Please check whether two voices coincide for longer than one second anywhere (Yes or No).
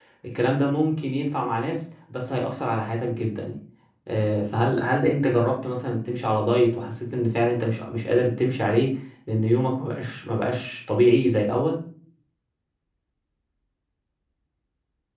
No